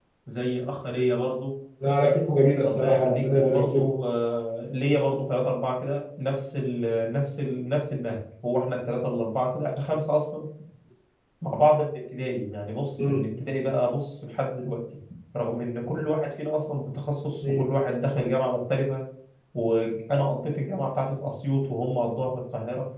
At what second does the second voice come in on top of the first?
2.6 s

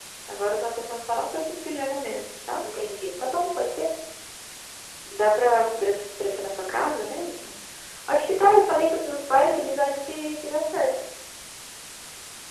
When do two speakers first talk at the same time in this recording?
none

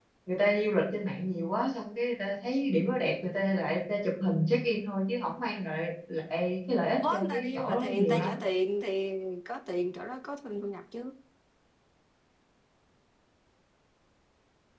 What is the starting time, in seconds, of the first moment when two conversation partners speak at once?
6.9 s

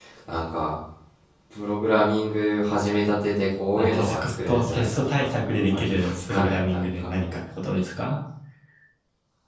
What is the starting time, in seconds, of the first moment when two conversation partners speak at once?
3.8 s

